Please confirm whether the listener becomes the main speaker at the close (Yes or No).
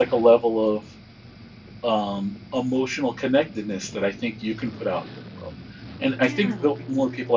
No